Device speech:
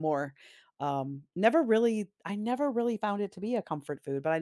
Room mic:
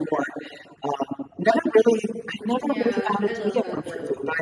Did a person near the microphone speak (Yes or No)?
Yes